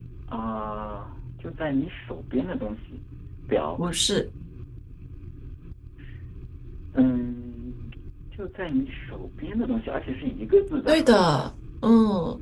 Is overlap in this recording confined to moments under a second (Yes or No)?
Yes